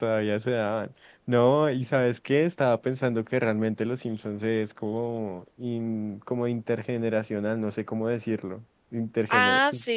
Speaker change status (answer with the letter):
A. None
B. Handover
B